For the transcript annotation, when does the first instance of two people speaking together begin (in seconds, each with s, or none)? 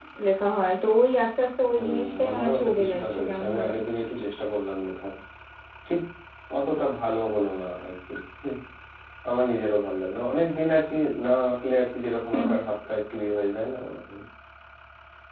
1.8 s